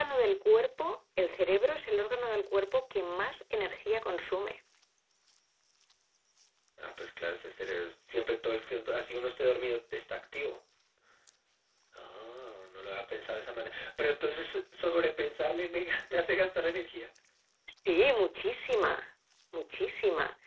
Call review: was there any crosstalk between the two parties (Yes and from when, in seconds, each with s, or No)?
No